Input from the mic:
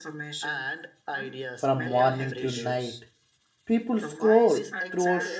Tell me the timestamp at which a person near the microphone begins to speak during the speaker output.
2 s

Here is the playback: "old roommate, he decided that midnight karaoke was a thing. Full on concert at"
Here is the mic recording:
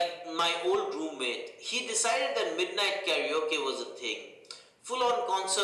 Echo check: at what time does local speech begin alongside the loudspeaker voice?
none

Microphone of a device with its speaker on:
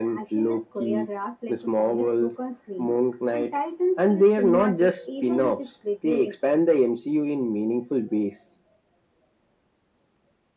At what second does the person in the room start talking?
none

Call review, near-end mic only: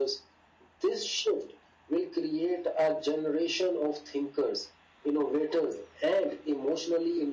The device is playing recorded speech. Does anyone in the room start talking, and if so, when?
none

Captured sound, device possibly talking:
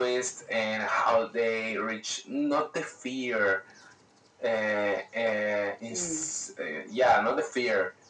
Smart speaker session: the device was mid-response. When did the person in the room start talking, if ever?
6 s

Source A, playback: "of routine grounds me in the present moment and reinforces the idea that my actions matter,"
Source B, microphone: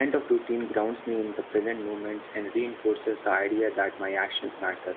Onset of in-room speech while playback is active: none

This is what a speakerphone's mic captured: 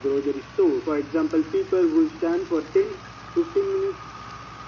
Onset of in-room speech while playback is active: none

